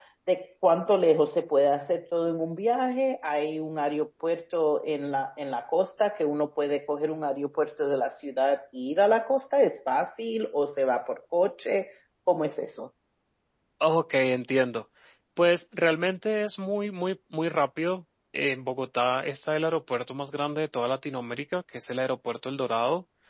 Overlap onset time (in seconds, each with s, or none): none